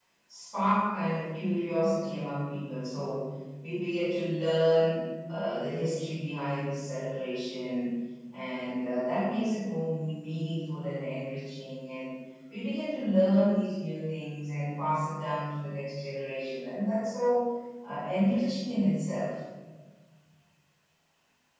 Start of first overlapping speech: none

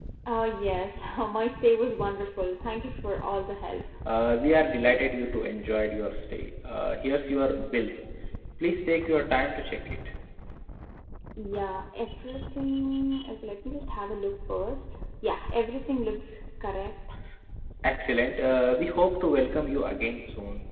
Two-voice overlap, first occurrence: none

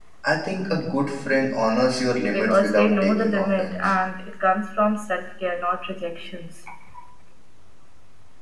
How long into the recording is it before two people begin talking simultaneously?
2.2 s

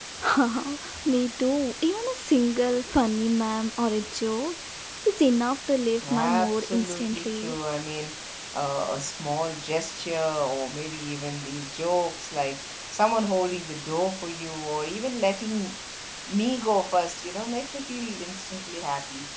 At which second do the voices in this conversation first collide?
6.0 s

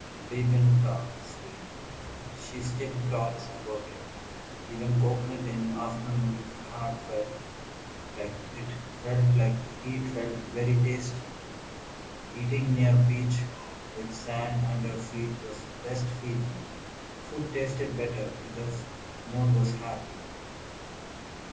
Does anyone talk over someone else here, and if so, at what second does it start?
none

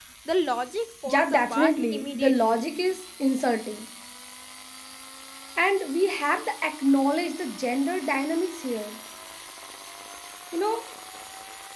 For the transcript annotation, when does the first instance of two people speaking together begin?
1.1 s

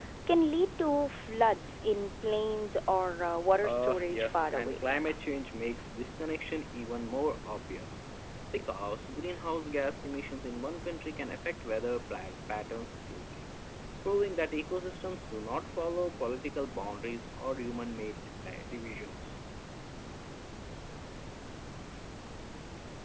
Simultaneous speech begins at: 3.6 s

